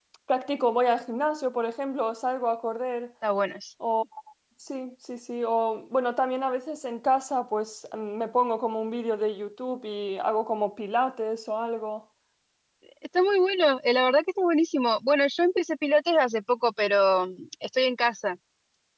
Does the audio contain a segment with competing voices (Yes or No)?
No